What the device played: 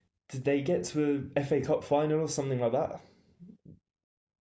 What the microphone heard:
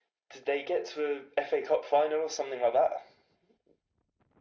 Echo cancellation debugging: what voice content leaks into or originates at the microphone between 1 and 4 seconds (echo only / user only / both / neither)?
echo only